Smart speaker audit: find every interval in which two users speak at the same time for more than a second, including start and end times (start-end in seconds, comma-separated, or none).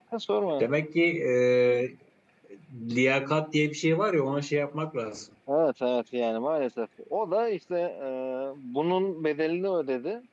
none